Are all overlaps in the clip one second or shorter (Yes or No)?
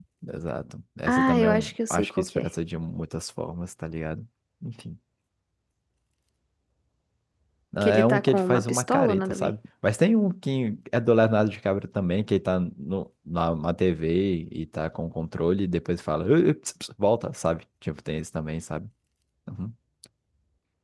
No